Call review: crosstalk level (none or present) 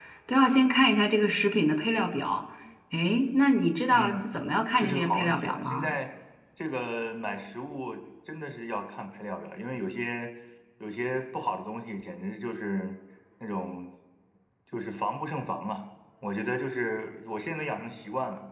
present